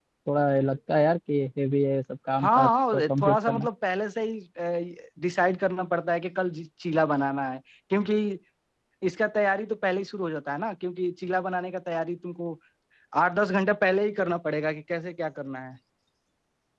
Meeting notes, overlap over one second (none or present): present